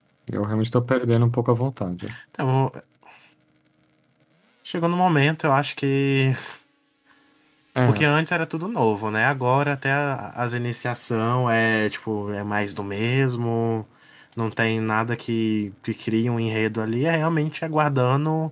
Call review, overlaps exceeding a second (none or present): none